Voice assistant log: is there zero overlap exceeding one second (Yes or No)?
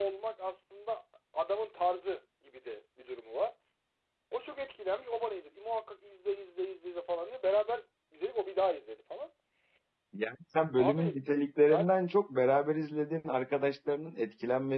Yes